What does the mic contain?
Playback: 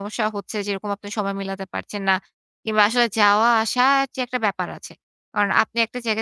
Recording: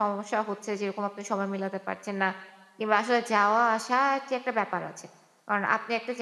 echo only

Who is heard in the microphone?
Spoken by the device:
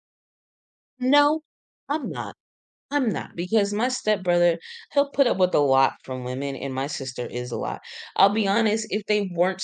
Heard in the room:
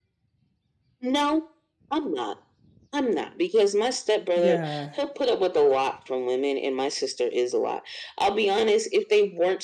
both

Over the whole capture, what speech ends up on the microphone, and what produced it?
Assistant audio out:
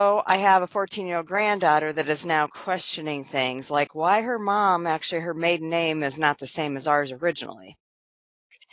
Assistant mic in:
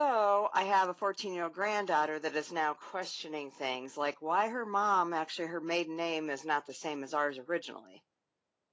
echo only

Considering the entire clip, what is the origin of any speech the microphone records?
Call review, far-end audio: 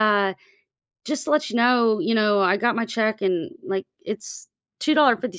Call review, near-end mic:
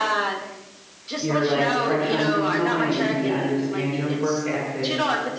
both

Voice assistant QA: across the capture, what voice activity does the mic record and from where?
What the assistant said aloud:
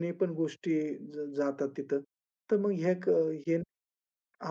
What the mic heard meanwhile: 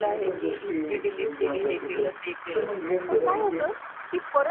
both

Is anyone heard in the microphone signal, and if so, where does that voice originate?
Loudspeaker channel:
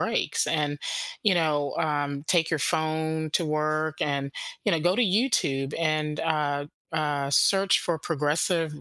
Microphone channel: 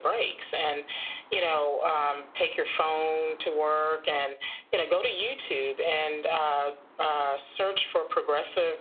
echo only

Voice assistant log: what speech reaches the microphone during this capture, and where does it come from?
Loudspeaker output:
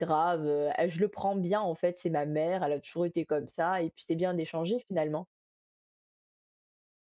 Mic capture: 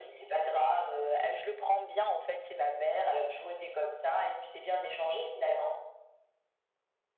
echo only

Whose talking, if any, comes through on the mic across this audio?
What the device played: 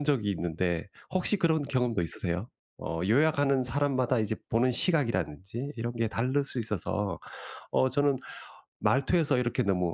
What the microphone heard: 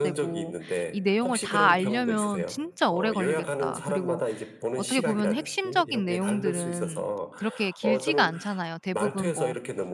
both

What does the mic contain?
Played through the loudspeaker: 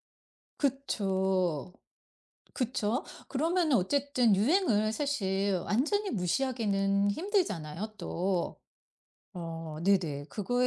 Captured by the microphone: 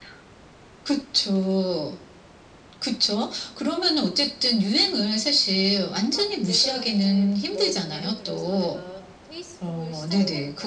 both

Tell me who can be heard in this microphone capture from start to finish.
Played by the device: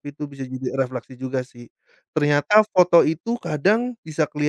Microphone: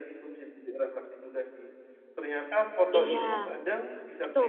both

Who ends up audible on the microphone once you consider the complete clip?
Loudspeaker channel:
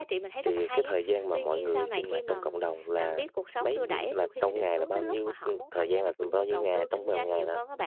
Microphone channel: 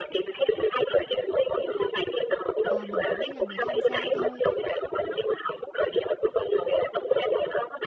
both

